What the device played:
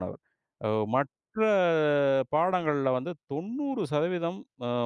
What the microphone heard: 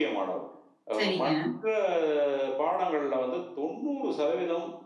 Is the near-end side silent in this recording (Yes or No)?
No